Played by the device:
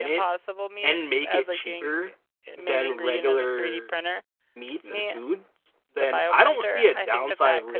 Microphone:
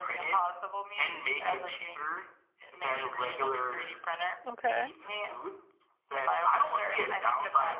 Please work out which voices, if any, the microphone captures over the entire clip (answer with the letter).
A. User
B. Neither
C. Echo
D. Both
D